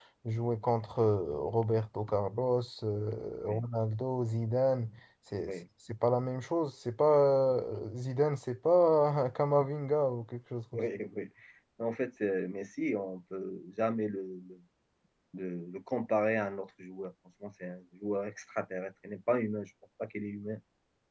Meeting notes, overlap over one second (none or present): none